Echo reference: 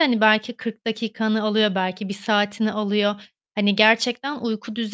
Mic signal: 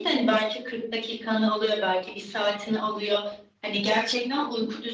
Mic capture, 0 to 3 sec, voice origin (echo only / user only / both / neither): echo only